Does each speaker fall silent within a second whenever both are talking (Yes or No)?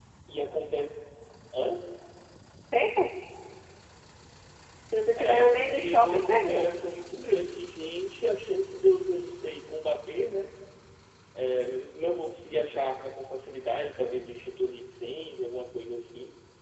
No